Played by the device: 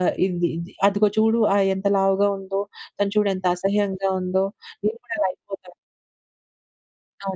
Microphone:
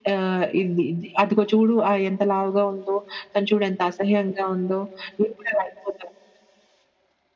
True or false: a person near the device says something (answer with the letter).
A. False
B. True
A